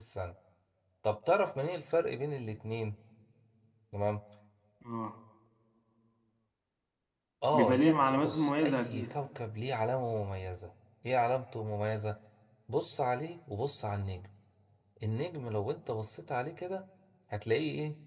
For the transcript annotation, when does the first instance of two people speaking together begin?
7.5 s

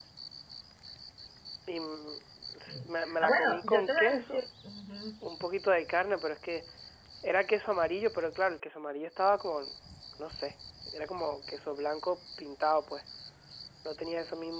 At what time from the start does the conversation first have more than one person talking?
2.7 s

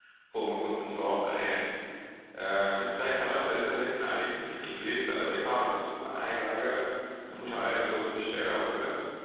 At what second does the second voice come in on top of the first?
none

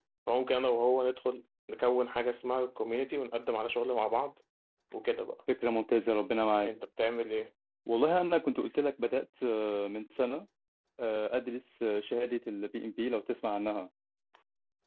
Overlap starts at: none

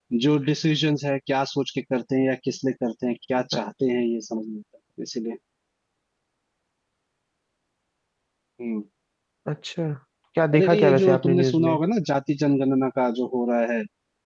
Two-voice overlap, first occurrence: 10.5 s

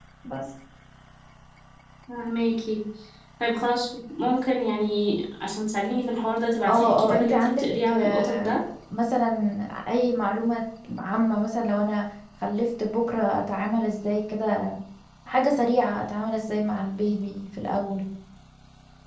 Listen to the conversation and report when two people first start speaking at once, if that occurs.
6.7 s

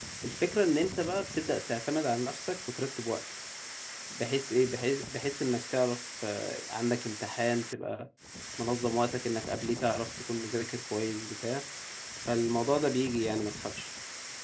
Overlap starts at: none

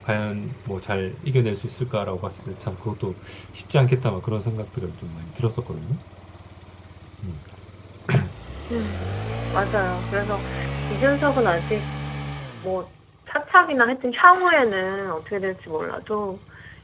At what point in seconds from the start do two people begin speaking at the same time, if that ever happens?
none

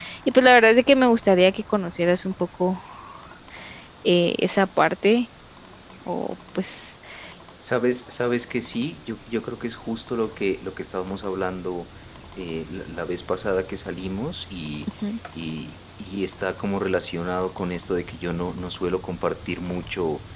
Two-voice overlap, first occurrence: none

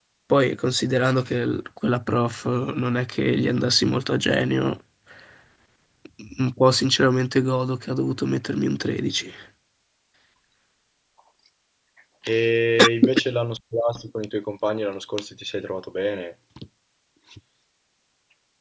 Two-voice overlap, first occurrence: none

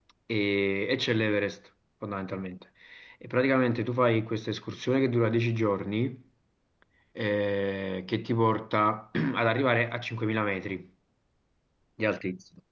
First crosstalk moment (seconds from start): none

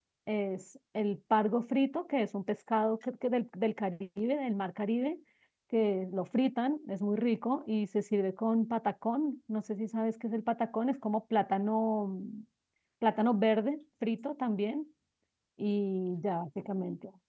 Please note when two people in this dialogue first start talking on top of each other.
none

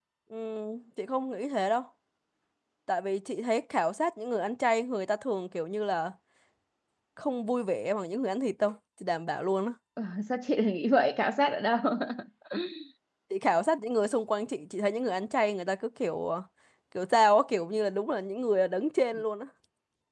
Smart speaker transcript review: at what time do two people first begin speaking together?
none

